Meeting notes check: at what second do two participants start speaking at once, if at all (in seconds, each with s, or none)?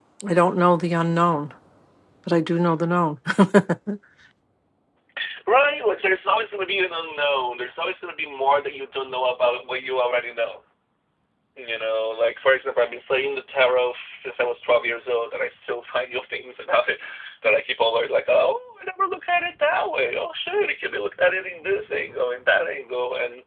none